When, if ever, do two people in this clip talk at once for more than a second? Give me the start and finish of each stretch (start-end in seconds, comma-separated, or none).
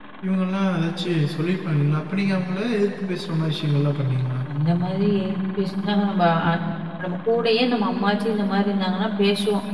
none